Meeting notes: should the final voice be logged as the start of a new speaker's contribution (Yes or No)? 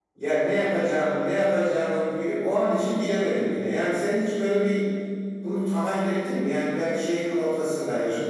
No